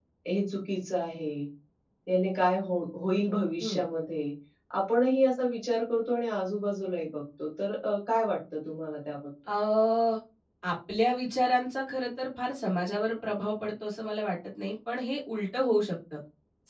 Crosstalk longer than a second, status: none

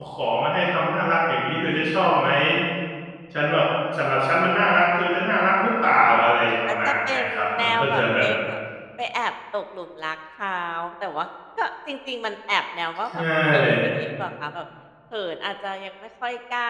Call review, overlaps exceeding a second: present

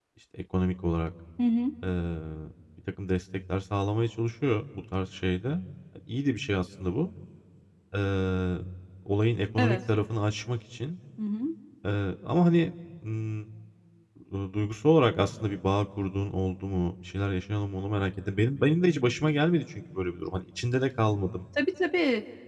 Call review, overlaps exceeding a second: none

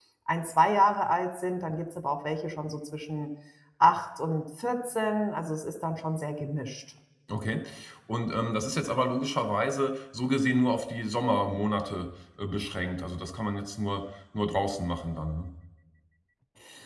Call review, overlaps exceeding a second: none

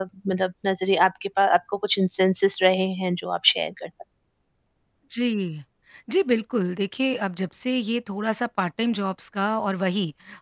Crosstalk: none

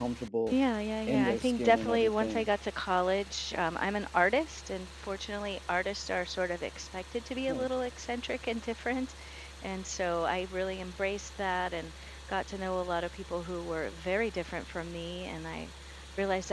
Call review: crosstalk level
present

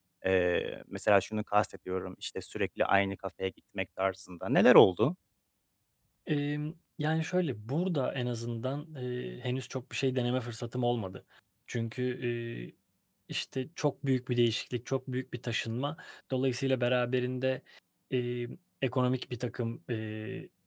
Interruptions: none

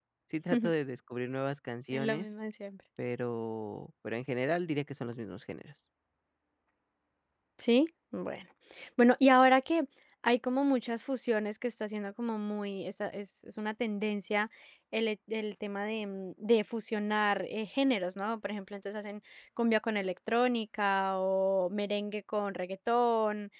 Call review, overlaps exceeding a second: none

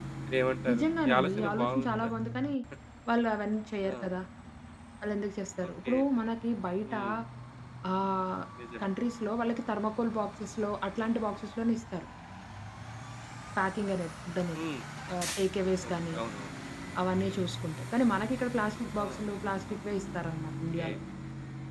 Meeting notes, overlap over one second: present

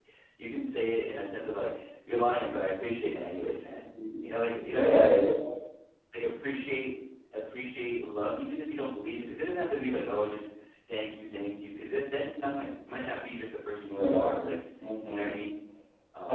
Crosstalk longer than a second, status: none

